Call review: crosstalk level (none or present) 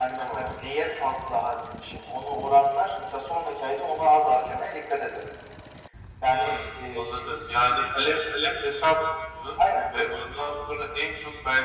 present